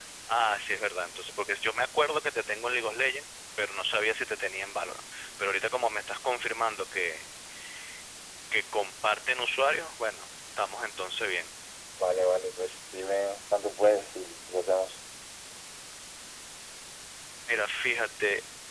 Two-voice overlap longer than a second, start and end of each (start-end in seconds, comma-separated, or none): none